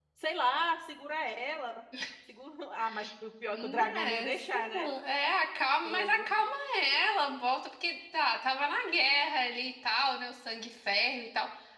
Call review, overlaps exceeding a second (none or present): present